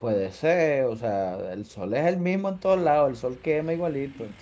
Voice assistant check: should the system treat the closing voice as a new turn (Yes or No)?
Yes